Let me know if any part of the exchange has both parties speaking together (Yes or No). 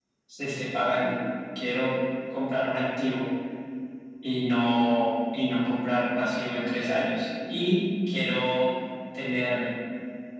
No